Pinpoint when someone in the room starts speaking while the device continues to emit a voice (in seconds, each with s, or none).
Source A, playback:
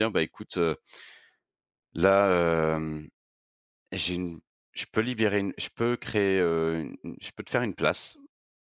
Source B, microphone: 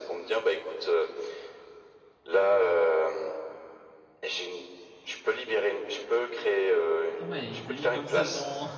7.1 s